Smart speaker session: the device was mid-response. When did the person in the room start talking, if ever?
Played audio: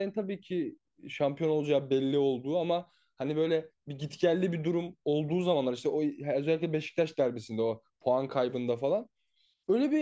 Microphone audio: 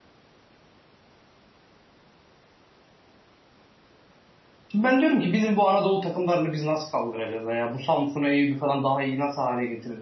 4.7 s

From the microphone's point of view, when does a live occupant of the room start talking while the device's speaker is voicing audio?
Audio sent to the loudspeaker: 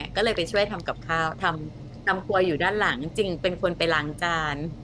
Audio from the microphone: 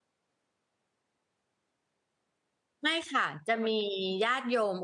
2.8 s

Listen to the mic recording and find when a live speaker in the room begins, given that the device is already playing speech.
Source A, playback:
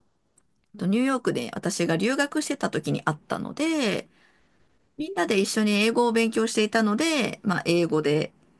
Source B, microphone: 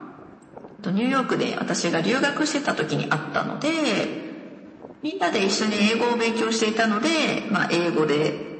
none

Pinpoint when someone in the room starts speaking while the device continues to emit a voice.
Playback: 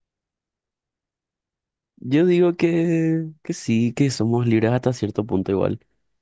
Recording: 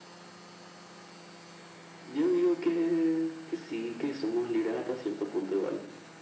none

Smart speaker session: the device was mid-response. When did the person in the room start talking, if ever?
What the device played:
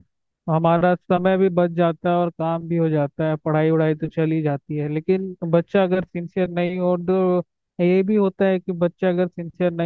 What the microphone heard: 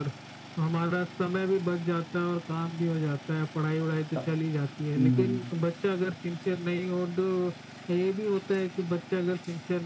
4.2 s

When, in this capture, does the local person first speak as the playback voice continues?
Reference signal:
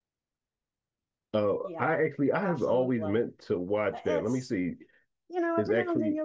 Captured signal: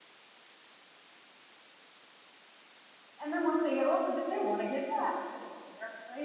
3.2 s

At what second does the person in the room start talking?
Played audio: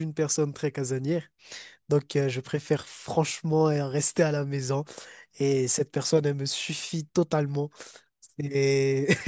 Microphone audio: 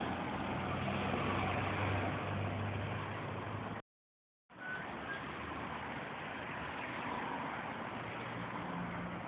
none

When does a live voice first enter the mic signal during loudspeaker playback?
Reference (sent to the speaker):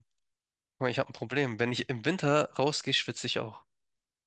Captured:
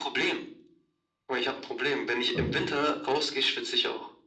2.3 s

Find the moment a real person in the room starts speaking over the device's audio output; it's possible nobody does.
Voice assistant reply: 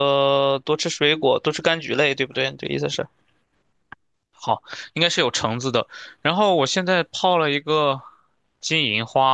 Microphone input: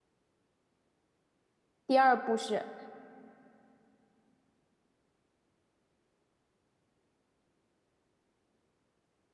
1.9 s

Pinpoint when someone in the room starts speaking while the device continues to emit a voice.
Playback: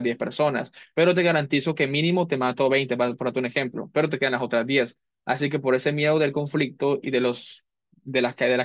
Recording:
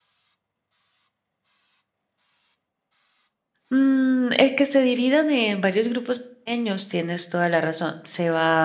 3.7 s

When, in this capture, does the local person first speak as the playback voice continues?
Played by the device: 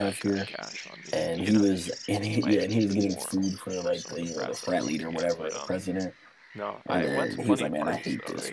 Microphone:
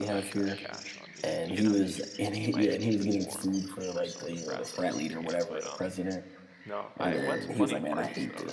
none

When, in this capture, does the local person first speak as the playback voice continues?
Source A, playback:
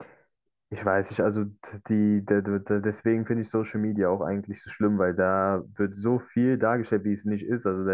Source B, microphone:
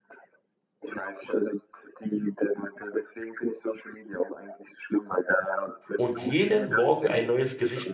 6.0 s

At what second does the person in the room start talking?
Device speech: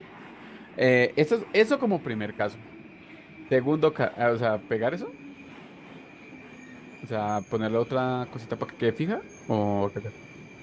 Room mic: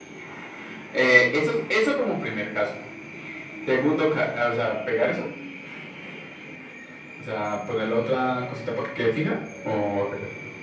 none

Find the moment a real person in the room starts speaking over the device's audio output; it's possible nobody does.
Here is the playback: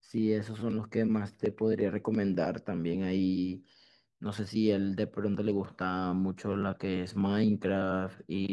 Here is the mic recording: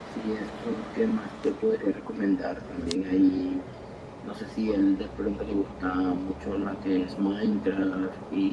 none

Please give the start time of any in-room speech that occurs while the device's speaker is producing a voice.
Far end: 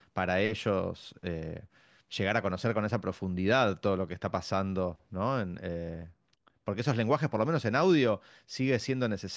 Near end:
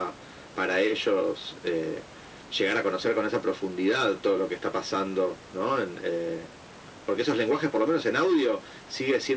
none

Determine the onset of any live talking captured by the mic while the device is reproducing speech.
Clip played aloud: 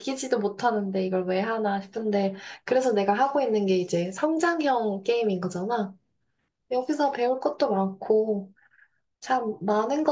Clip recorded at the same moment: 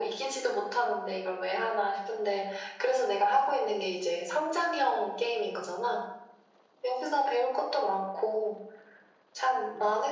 none

